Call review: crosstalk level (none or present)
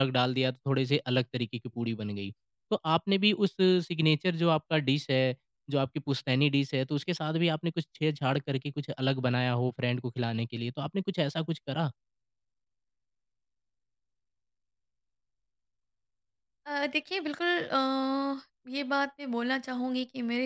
none